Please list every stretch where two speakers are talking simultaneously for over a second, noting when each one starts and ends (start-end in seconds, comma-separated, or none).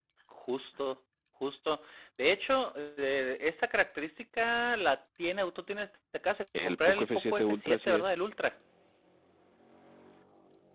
6.6-8.2